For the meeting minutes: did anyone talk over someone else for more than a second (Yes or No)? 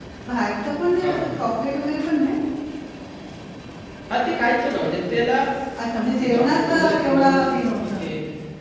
Yes